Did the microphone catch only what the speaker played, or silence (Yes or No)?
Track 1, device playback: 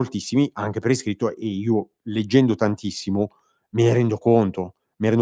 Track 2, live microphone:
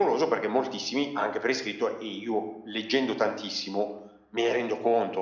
Yes